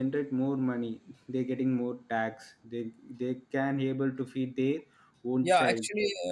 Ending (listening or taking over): taking over